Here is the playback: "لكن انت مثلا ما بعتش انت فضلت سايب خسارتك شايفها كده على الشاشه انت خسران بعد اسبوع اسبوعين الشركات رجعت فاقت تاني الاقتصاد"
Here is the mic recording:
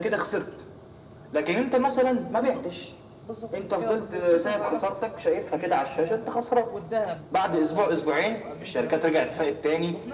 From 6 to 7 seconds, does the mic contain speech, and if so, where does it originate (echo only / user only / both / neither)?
both